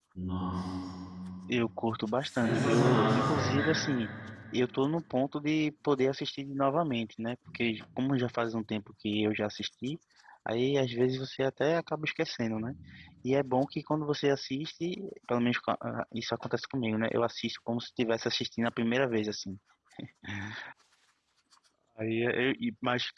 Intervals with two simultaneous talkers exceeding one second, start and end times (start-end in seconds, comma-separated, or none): 2.2-3.4